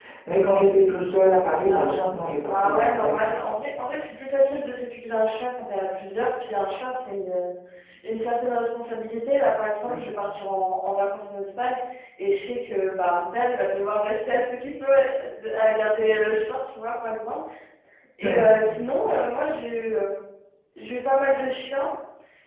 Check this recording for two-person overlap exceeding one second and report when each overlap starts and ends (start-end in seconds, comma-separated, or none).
1.6-3.4